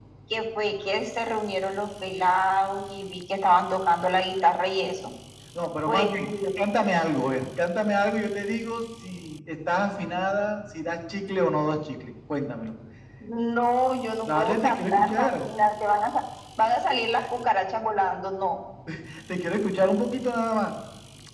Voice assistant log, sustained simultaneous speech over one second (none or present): present